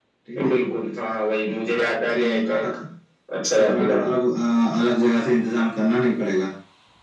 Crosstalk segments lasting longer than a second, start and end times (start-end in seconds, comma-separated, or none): none